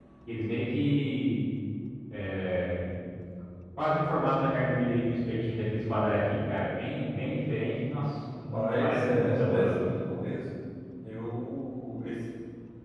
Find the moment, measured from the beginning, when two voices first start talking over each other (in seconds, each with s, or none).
8.3 s